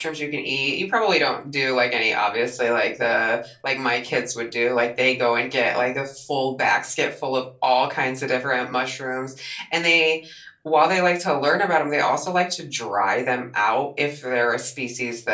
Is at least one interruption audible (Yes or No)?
No